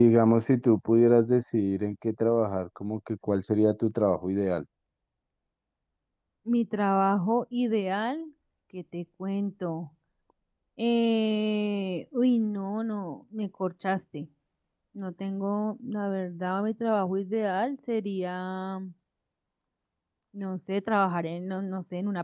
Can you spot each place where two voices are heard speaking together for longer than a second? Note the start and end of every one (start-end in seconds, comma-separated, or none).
none